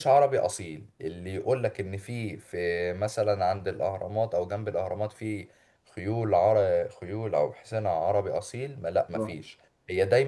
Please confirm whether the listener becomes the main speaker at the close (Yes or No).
No